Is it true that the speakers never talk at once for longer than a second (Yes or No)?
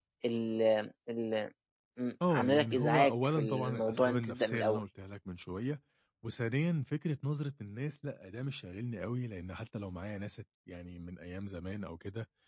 No